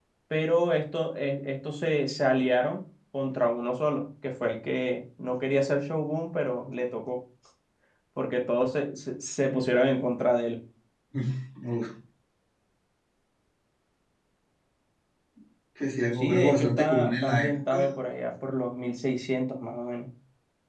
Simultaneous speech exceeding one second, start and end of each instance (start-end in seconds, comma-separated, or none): 16.1-17.8